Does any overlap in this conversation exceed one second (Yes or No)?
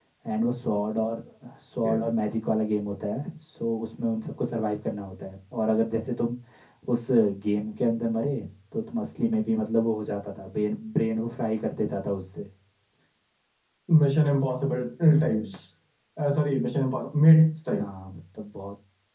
No